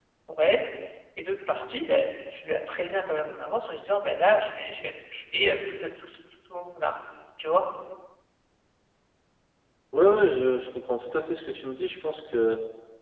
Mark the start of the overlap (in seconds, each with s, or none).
none